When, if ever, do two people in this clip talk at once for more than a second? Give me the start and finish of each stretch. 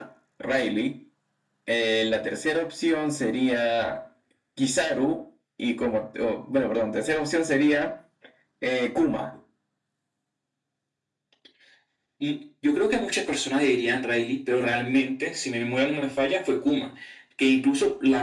none

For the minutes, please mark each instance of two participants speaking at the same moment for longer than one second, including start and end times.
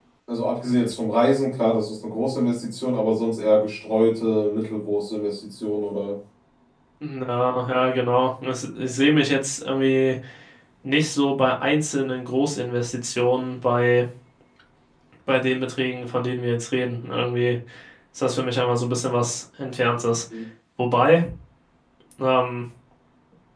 none

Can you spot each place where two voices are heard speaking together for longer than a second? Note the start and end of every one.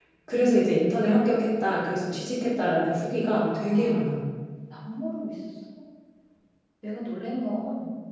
none

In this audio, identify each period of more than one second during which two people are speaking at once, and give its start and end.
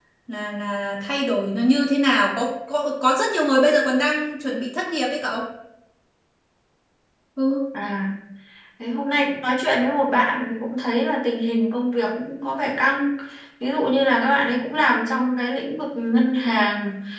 none

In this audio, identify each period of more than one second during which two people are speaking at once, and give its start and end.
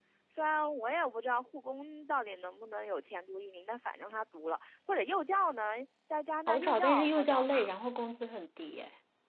6.5-7.7

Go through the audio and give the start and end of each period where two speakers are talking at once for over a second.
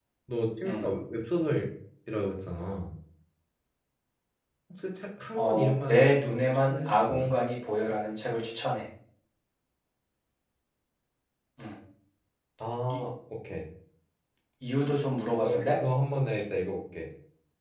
5.4-7.3

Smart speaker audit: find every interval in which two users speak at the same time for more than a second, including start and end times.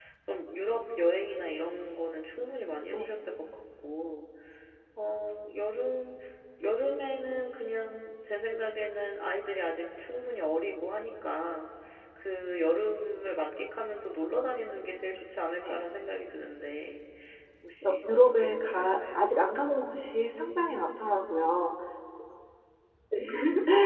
17.8-19.3

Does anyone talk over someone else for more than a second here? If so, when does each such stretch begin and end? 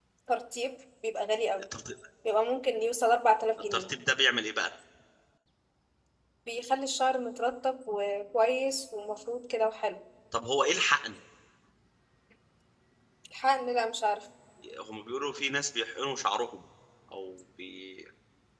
none

